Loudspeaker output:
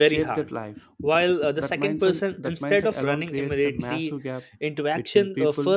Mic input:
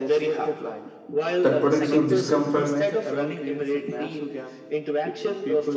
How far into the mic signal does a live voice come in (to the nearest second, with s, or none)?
1 s